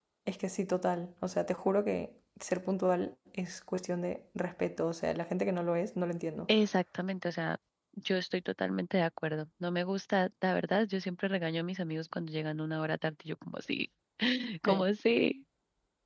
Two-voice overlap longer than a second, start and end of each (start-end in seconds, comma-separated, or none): none